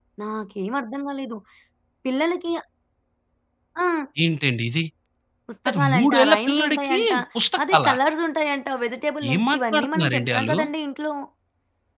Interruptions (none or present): present